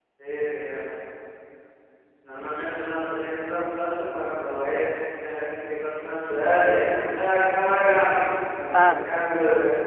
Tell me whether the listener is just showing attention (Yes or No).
Yes